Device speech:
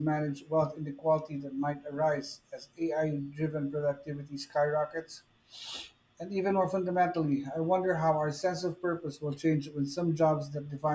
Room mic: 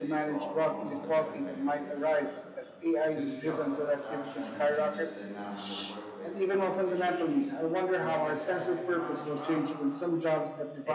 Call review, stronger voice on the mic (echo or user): echo